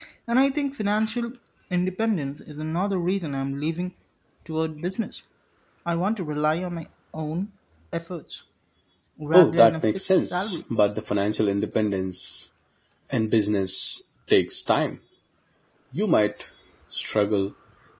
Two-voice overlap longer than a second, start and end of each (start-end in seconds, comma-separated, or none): 9.3-10.6